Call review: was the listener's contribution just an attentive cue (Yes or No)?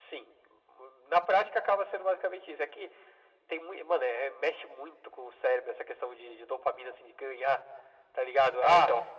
Yes